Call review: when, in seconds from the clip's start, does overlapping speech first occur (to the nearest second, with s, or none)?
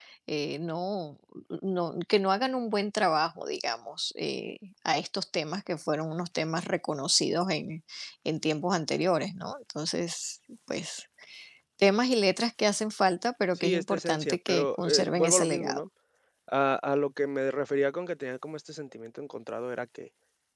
14 s